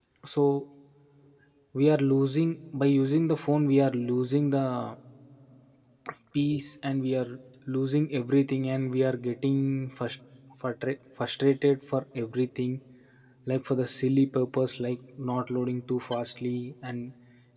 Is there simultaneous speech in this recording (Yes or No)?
No